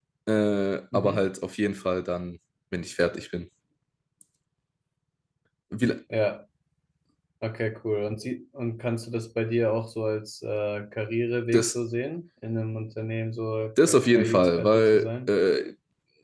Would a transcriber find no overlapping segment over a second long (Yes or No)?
No